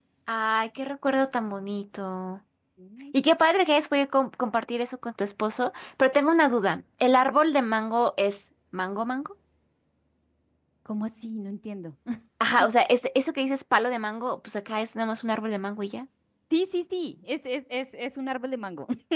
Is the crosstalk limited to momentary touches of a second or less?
Yes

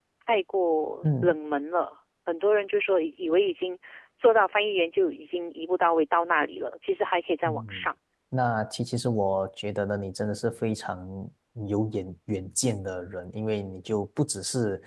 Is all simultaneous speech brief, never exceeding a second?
Yes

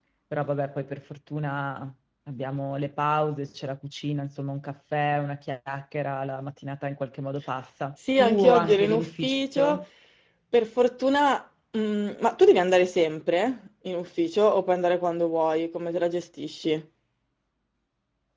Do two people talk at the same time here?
Yes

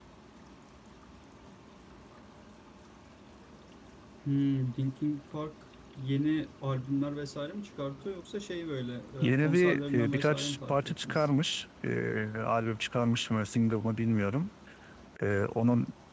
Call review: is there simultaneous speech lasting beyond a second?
Yes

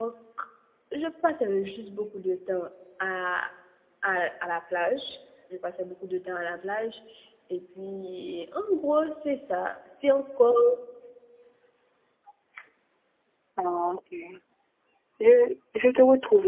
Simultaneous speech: No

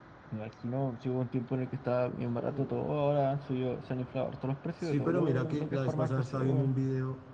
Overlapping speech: Yes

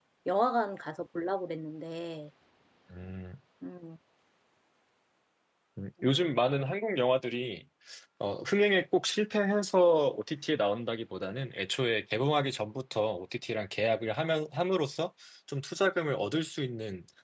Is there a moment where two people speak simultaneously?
No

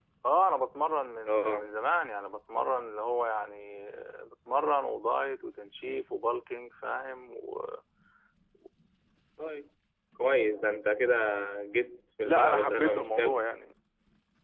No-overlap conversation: No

